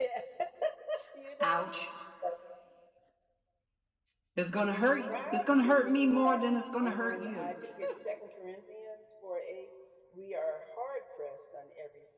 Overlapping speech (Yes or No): Yes